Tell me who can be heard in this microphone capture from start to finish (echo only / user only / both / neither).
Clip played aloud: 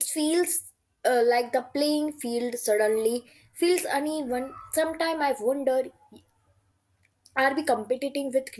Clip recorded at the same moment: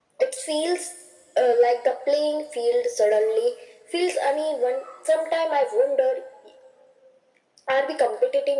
echo only